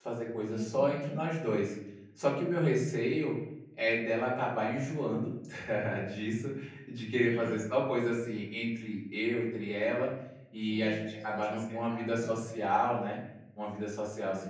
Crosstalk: present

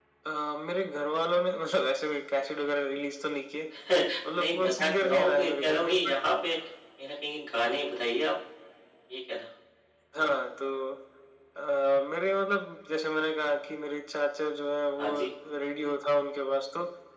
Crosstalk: present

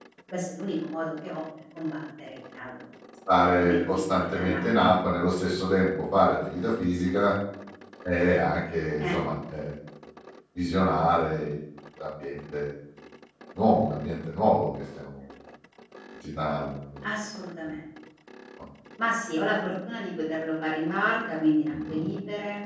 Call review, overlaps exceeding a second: present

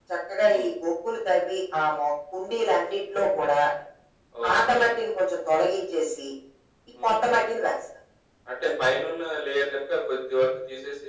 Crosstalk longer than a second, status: none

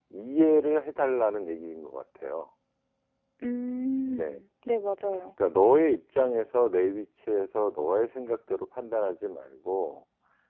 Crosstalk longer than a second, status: none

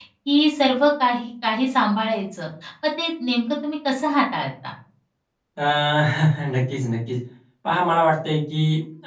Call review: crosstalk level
none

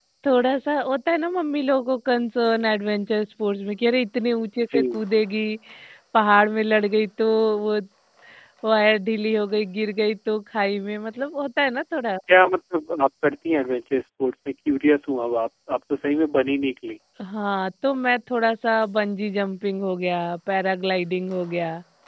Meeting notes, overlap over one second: none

